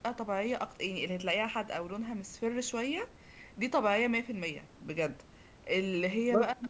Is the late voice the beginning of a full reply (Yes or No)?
No